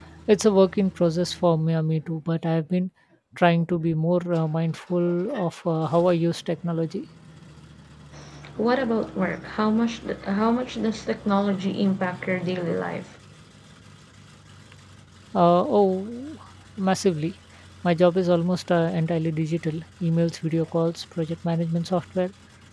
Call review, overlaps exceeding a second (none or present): none